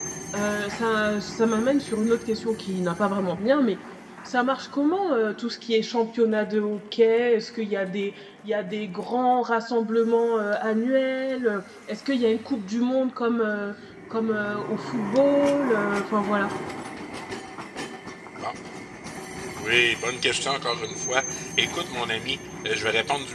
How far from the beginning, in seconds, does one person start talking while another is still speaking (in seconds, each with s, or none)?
none